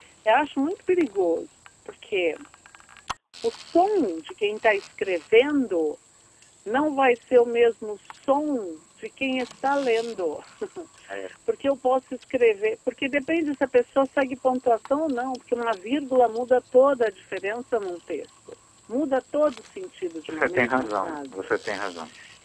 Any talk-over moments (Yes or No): Yes